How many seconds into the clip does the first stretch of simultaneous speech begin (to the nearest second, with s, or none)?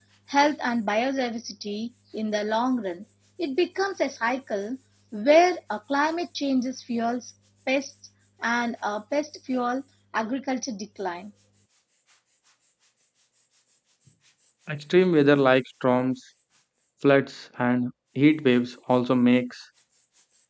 none